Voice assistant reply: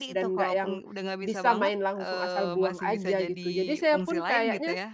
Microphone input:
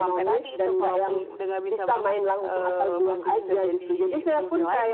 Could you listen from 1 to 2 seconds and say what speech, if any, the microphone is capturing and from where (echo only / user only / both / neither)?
echo only